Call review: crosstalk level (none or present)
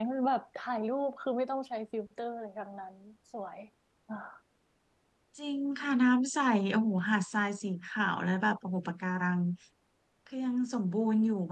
none